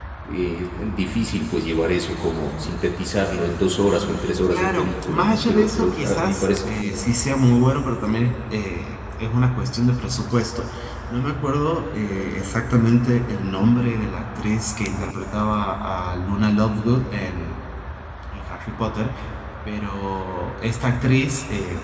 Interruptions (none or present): present